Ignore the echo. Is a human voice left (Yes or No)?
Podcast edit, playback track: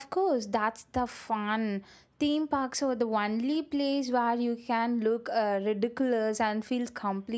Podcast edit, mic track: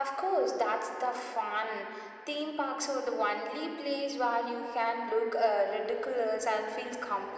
No